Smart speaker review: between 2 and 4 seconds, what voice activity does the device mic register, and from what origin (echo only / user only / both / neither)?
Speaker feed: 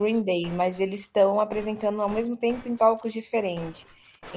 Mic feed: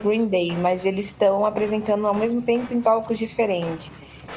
echo only